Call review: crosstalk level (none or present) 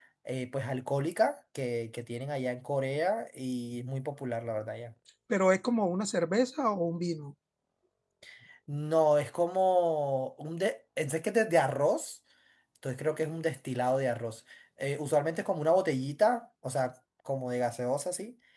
none